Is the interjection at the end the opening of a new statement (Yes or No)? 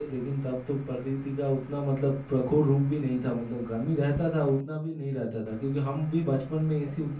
No